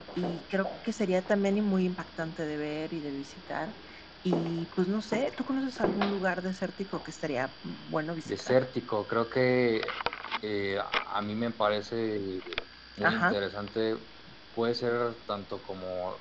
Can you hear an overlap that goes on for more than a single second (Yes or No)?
No